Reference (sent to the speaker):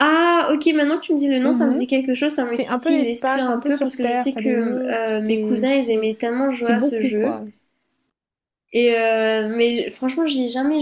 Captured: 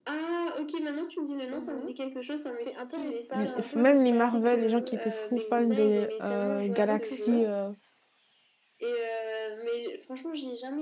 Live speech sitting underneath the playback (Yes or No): No